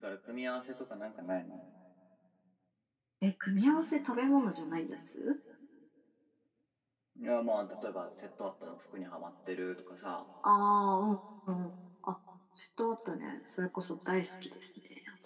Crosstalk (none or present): none